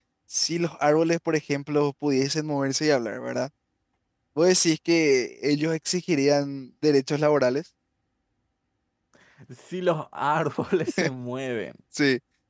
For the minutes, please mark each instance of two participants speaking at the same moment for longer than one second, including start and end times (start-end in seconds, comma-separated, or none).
none